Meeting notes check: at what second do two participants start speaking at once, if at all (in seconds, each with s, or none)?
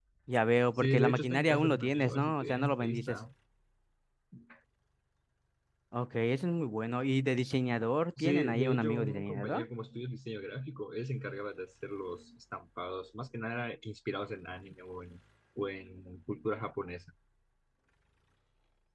0.8 s